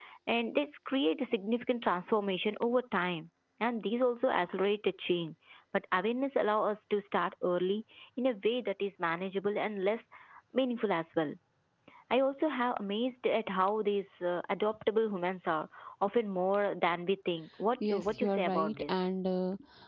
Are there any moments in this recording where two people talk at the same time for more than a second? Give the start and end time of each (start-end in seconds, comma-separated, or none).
17.8-19.0